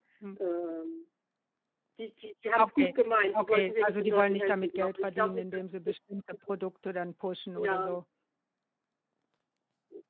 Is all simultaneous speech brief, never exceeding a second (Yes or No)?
No